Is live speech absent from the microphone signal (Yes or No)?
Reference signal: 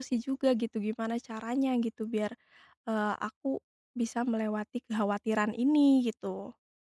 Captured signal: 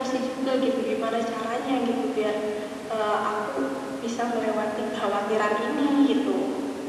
Yes